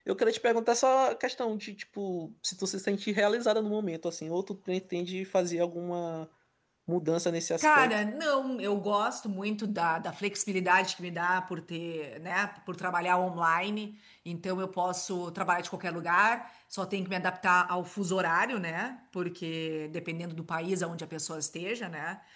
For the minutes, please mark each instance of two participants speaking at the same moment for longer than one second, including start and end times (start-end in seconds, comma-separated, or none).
none